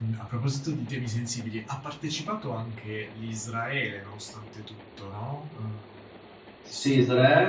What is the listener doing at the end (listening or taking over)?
taking over